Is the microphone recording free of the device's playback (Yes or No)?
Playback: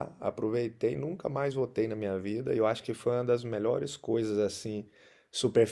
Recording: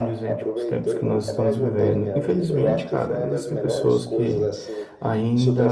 No